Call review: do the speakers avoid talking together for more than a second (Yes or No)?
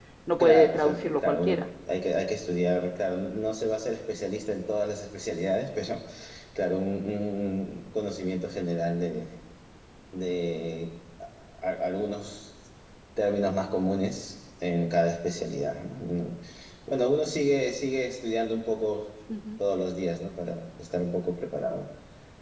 No